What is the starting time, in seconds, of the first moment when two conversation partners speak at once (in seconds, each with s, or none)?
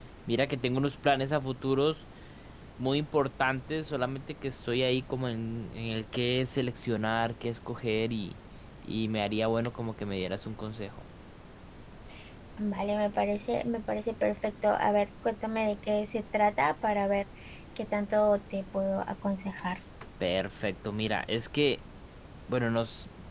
none